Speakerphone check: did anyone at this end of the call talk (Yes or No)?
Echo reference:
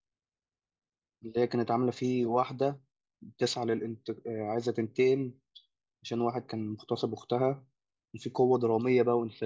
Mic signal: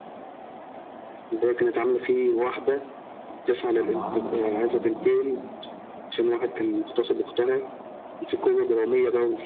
Yes